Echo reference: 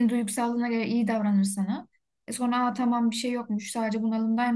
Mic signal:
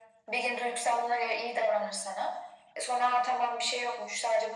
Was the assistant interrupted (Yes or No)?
No